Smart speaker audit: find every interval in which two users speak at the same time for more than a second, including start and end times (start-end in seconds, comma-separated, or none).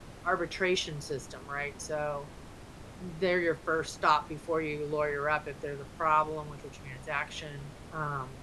none